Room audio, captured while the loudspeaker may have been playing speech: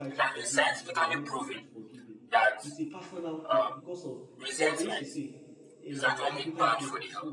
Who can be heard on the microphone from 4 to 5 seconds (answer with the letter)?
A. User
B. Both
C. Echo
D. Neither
B